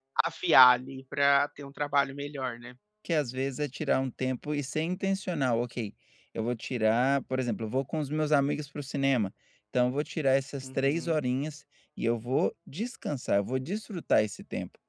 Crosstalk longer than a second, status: none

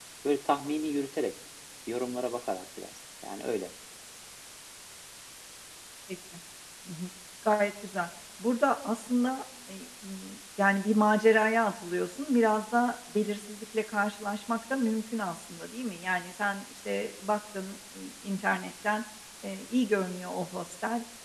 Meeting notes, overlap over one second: none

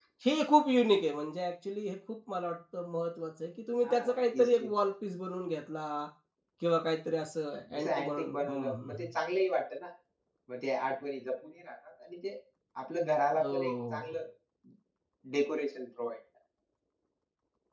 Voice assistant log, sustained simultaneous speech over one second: present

